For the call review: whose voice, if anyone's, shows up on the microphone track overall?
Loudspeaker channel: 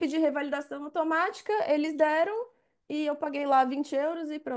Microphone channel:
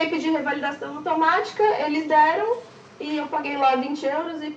echo only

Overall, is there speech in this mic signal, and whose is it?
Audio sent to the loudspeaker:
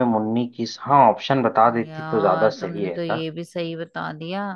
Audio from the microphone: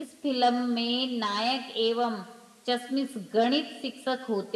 user only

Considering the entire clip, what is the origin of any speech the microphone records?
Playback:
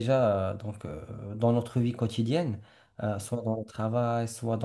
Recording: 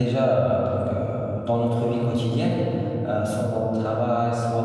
echo only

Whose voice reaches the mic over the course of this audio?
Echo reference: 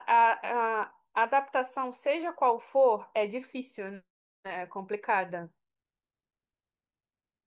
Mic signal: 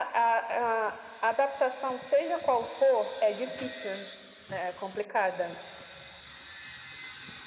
echo only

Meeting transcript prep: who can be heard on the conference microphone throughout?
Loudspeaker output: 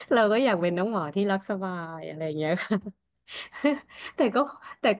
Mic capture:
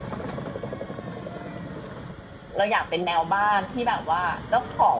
user only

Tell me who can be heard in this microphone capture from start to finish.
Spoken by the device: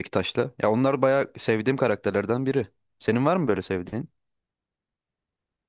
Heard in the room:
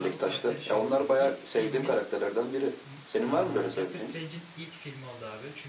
both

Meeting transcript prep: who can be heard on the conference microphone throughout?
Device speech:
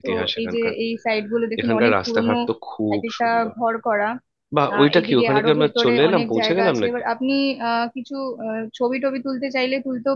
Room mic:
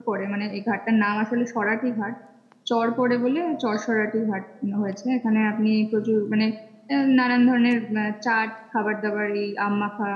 user only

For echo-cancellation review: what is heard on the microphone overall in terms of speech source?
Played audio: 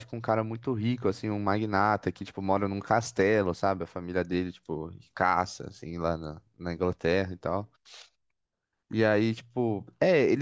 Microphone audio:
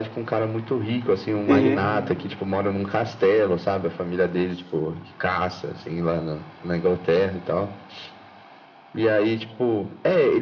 both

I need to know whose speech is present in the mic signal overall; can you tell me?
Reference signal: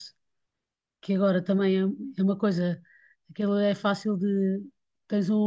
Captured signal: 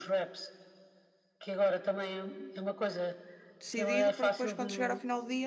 both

